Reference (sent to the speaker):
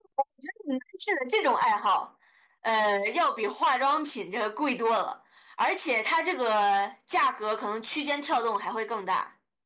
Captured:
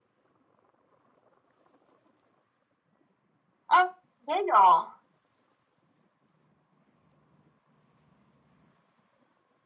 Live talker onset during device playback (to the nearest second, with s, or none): 4 s